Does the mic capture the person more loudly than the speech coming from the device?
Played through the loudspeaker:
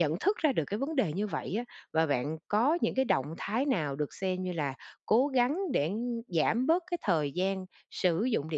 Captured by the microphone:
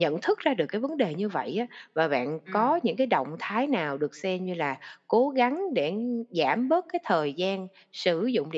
No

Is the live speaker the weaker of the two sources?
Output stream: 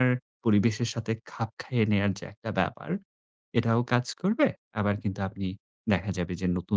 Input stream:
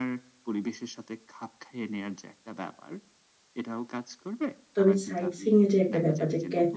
No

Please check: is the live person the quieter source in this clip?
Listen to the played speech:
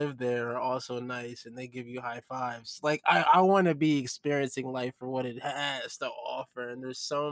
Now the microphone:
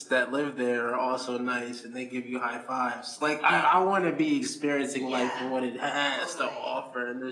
Yes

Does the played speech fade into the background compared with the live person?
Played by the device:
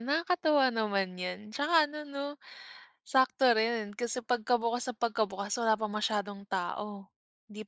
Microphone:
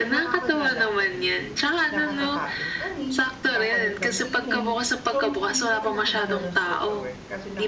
No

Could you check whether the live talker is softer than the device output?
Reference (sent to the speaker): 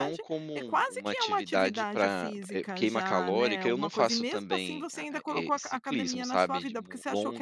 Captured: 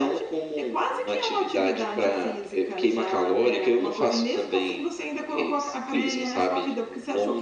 Yes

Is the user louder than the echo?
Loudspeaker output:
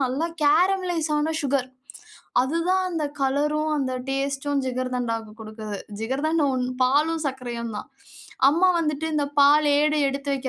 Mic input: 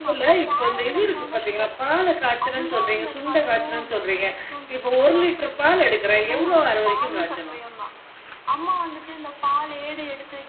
Yes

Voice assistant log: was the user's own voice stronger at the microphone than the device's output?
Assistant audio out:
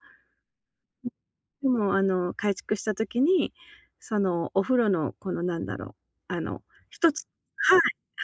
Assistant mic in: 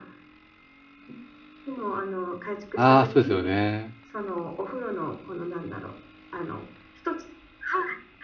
Yes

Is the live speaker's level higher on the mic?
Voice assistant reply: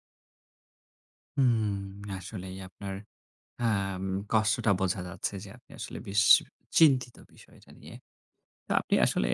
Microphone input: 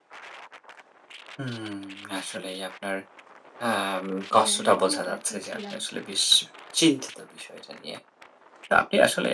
No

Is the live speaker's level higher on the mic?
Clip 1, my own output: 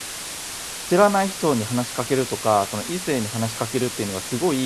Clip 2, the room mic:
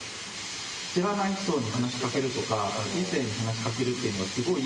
No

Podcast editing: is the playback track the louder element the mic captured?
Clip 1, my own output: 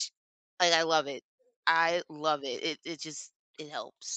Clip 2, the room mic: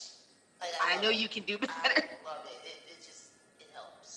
No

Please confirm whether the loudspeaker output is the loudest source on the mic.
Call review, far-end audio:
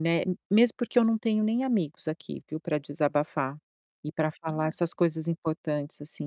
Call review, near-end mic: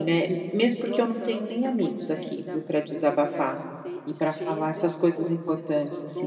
Yes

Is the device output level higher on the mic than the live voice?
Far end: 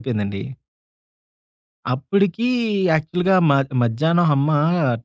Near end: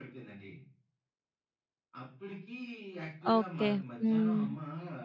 No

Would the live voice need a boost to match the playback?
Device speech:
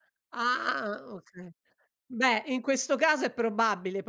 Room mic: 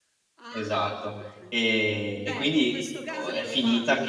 No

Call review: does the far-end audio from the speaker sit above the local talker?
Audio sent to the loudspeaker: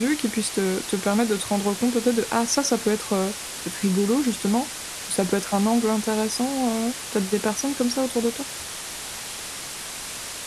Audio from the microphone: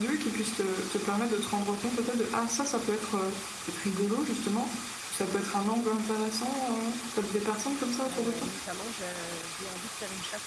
Yes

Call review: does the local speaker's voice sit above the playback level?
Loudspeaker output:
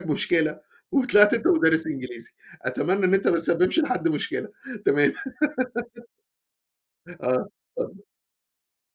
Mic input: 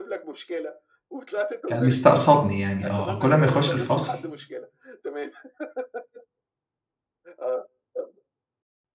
Yes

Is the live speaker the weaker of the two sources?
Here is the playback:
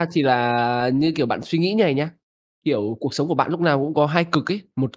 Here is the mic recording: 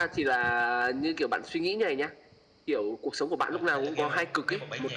Yes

